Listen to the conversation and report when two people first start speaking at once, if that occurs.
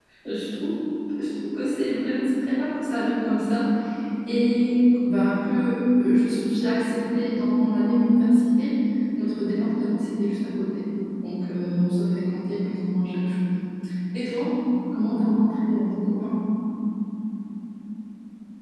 none

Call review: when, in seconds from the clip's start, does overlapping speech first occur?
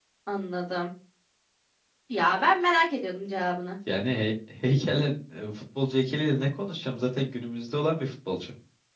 none

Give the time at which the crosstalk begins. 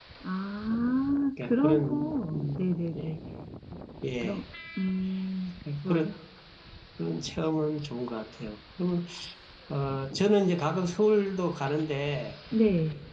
1.4 s

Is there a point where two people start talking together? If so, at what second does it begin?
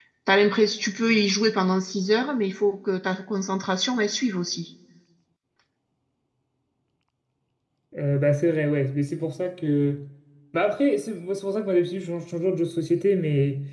none

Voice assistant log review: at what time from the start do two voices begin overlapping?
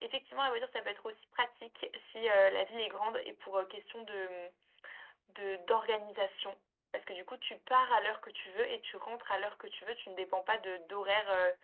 none

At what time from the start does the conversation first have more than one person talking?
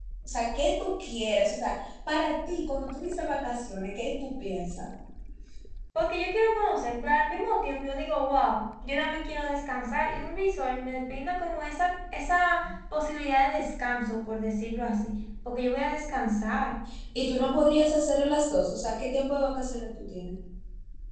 none

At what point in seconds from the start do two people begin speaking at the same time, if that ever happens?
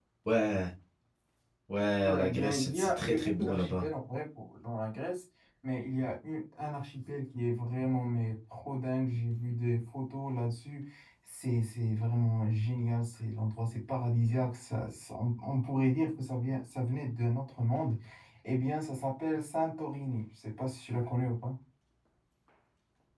2.0 s

